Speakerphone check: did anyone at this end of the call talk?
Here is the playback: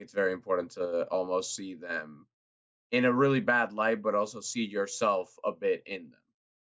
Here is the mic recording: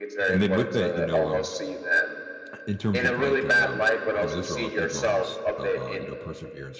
Yes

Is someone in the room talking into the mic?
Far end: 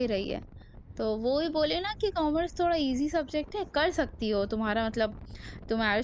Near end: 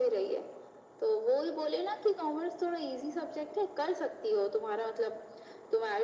No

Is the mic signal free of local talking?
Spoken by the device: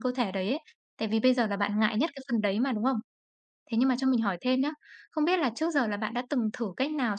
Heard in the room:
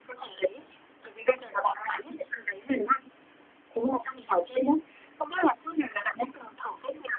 Yes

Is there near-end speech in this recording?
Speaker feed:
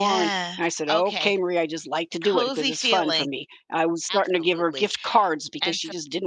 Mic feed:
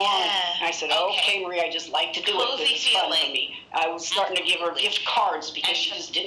No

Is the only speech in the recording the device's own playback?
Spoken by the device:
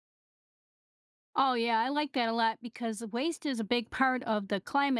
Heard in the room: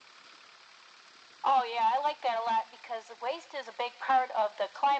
Yes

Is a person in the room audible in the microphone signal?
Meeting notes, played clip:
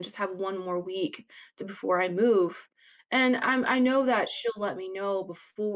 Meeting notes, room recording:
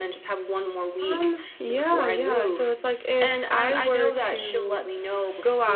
Yes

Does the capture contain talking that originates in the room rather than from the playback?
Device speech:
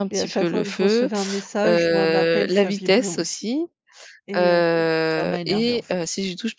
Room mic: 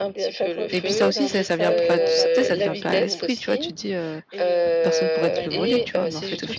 Yes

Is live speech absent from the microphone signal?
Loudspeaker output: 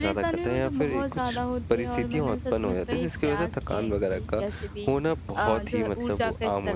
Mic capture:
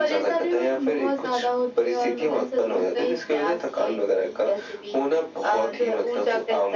Yes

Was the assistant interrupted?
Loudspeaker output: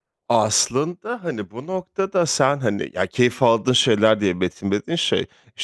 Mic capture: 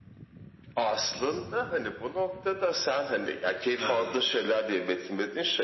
Yes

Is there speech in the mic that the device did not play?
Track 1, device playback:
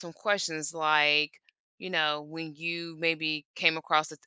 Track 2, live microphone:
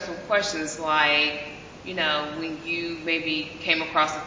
No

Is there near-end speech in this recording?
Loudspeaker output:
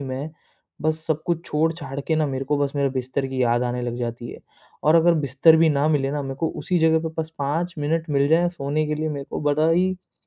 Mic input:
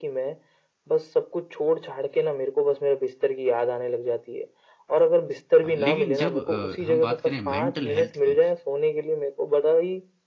Yes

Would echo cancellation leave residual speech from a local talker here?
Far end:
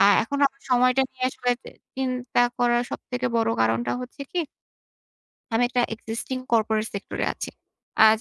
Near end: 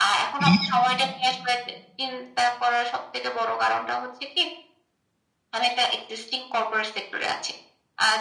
Yes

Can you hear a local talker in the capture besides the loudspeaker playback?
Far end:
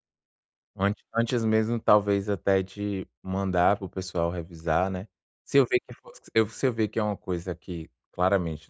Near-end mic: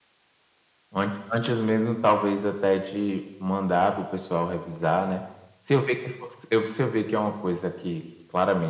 No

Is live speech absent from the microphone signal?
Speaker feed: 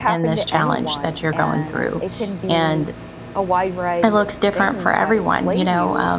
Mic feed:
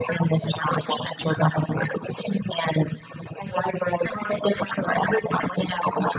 Yes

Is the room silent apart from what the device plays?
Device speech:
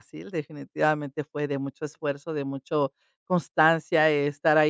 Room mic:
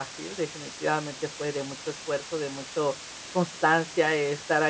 Yes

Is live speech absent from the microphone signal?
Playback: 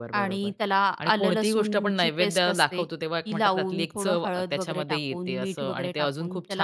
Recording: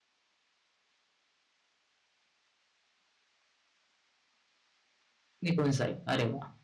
No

